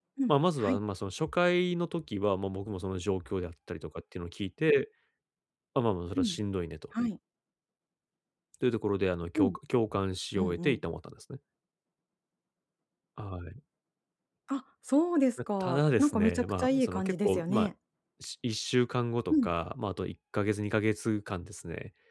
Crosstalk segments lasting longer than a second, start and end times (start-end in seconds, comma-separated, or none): 15.6-17.7